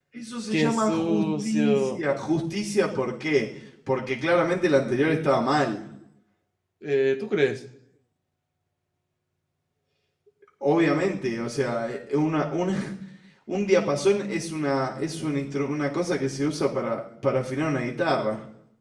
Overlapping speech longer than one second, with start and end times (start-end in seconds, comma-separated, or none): 0.5-2.0